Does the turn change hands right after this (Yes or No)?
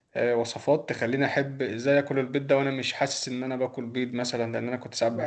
Yes